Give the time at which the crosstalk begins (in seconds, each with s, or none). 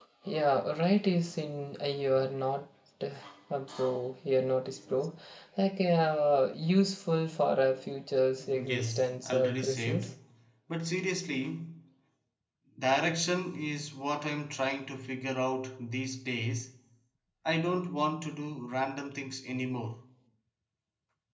8.7 s